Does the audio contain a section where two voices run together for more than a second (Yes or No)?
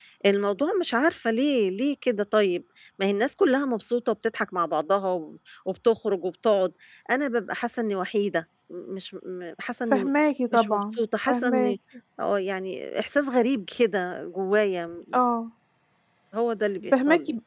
Yes